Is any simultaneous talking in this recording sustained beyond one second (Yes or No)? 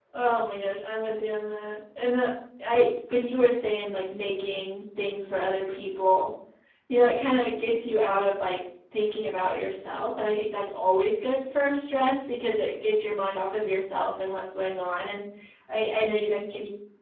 No